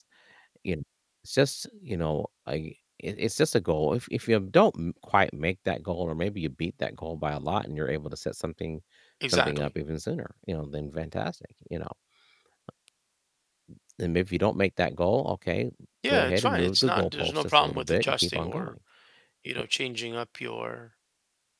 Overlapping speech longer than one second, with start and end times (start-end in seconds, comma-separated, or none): 16.1-18.7